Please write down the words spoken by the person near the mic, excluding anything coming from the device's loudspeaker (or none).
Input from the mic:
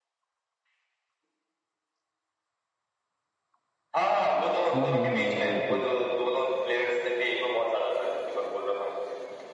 हाँ हाँ हाँ वो थी